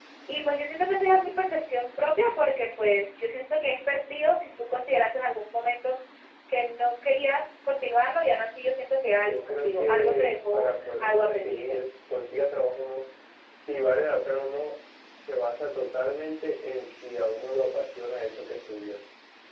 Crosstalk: present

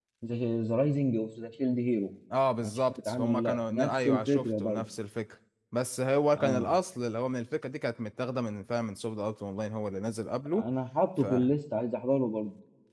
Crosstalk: present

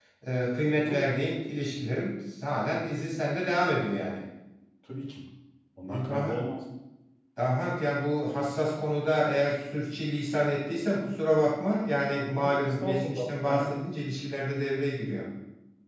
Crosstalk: present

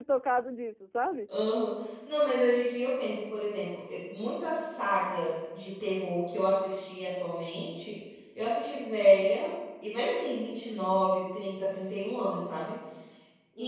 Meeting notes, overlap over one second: none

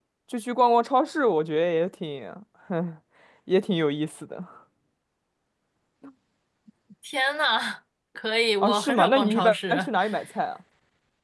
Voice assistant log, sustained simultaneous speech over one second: present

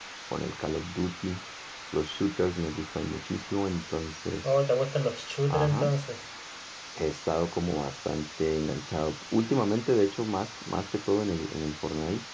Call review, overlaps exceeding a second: none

